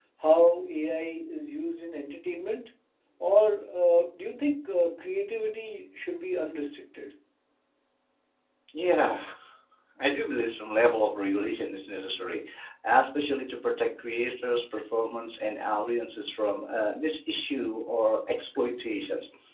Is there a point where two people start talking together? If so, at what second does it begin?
none

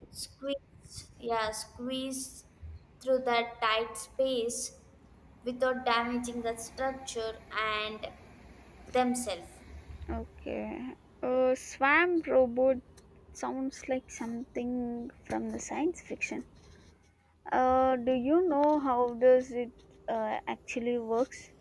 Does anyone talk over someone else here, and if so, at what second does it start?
none

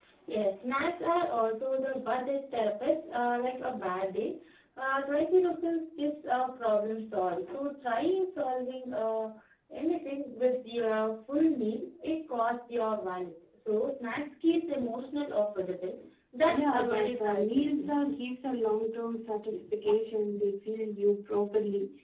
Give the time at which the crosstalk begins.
16 s

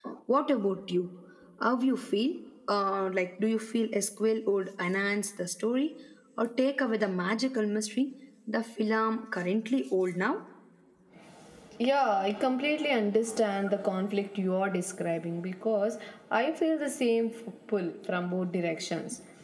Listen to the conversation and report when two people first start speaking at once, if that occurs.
none

